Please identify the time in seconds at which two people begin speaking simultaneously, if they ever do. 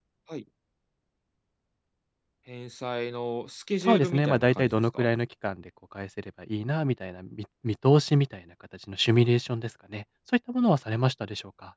3.8 s

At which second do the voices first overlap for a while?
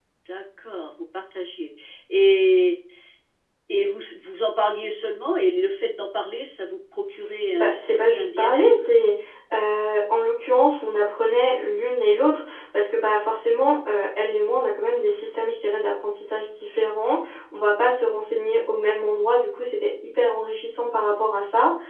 7.5 s

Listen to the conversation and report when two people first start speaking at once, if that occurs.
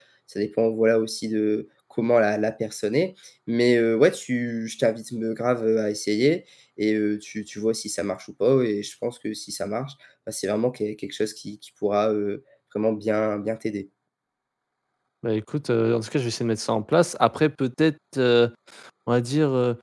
none

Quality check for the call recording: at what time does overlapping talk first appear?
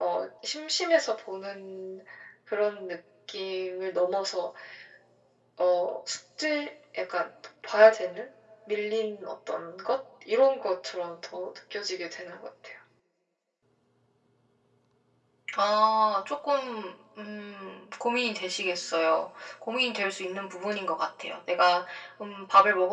none

